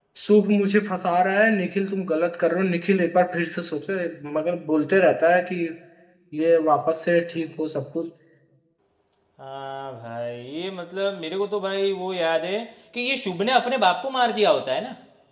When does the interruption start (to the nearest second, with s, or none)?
none